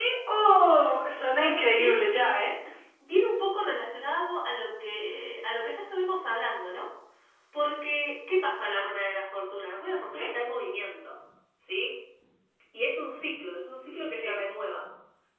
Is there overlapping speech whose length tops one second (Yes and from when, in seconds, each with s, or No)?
Yes, from 1.3 s